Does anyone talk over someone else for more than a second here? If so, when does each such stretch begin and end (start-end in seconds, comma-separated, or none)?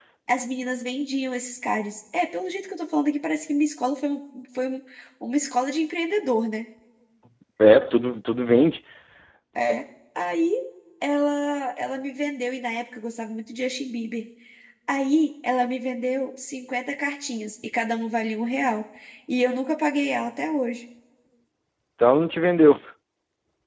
none